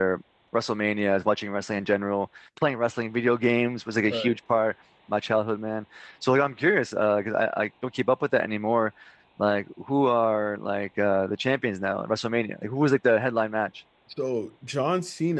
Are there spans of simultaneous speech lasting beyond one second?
No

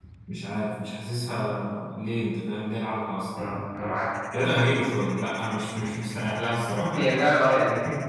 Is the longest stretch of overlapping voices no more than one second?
Yes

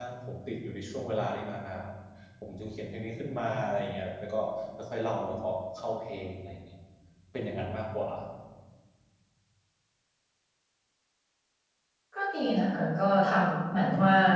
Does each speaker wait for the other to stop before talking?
Yes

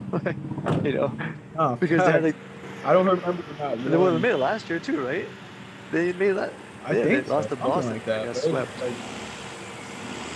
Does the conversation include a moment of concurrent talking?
Yes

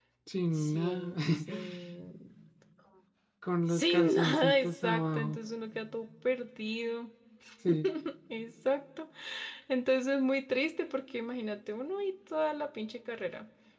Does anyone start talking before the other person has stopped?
Yes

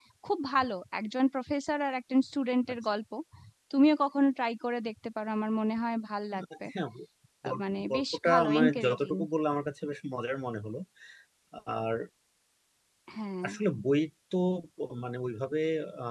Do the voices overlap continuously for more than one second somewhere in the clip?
Yes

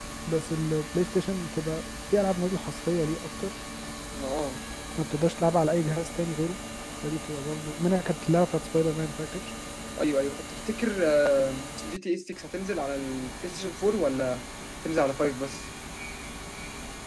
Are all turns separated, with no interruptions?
Yes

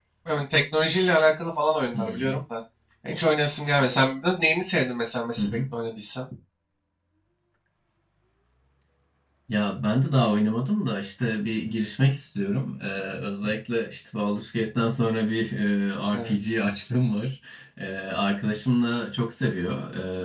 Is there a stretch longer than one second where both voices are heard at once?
No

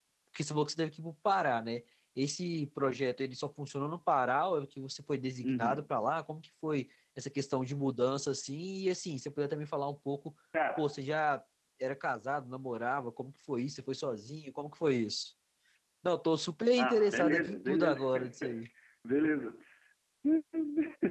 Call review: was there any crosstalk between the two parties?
Yes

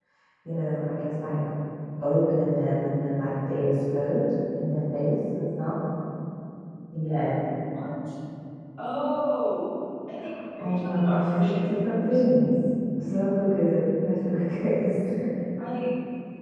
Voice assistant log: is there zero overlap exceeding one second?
No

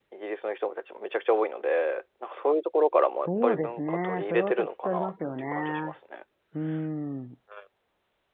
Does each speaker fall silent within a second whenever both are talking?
No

